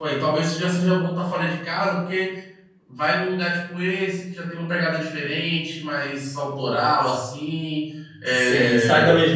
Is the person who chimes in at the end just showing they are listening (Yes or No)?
No